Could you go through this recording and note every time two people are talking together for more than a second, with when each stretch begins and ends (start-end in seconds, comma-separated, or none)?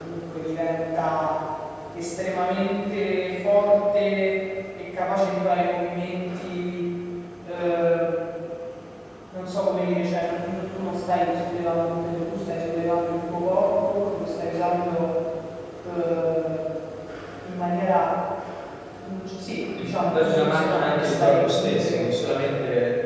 19.8-22.0